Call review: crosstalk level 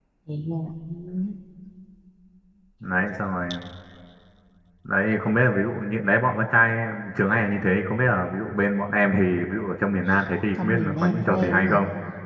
present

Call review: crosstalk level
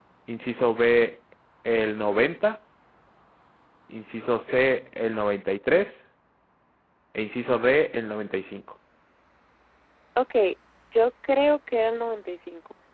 none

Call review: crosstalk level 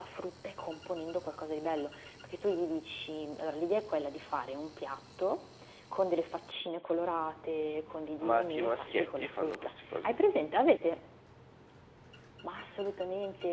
present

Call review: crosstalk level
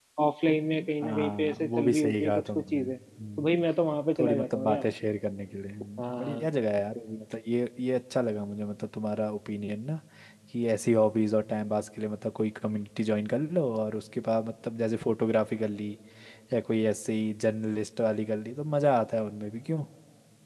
present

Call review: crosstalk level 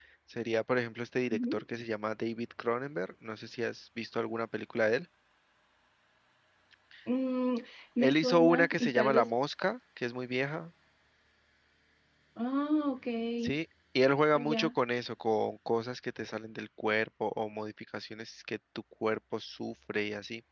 present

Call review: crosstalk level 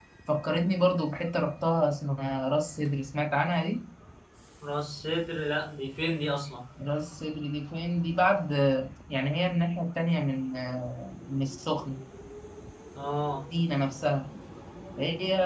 none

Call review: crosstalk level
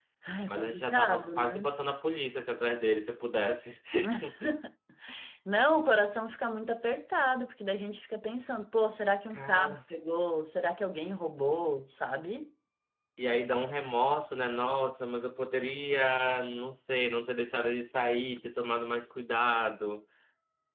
present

